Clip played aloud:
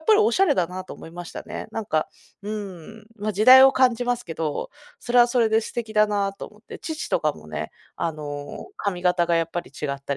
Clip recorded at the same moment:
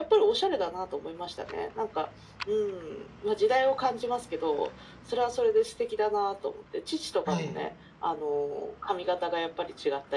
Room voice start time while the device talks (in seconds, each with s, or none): 7.2 s